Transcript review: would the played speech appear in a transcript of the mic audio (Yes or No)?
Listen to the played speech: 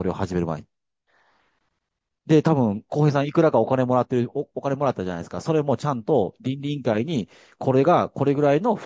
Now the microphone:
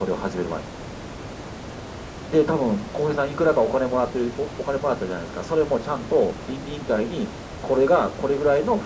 Yes